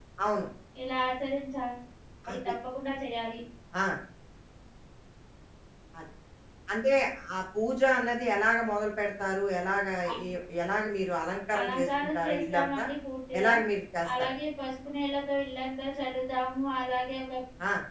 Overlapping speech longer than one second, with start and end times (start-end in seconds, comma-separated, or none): 11.6-12.8